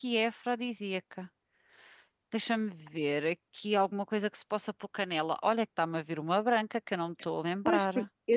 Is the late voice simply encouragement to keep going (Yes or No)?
No